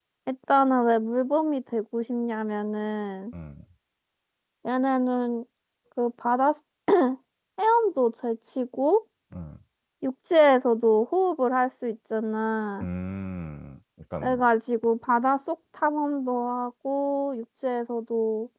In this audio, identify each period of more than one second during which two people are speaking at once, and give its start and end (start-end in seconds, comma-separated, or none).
none